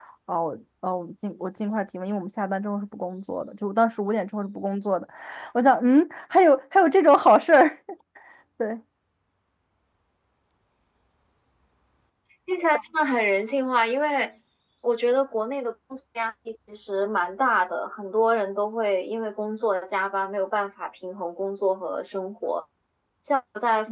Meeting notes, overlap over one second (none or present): none